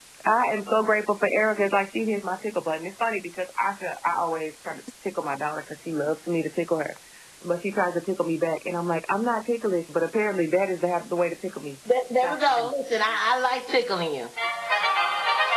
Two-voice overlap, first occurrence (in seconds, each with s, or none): none